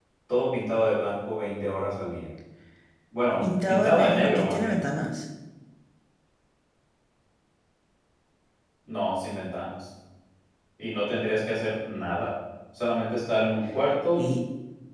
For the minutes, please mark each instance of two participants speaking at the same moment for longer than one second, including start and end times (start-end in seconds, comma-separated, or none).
3.4-4.8